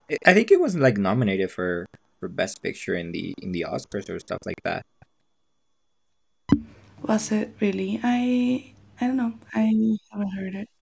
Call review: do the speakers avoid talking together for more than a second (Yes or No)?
Yes